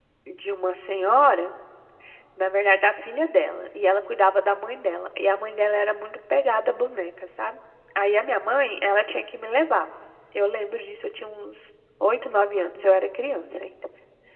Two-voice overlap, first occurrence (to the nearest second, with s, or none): none